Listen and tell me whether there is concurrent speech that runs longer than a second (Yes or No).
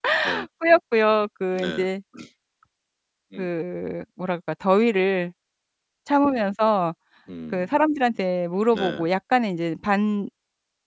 No